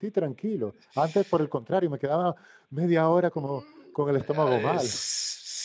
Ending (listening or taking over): taking over